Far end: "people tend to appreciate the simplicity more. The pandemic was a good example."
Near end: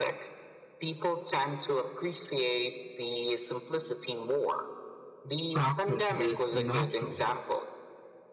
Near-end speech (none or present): present